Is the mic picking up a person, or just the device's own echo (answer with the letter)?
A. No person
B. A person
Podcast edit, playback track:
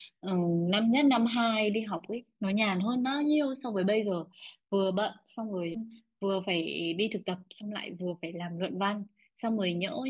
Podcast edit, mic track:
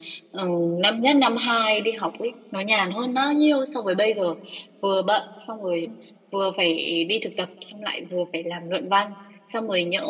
A